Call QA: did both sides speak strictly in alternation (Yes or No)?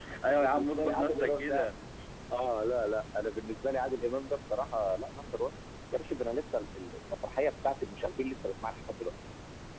No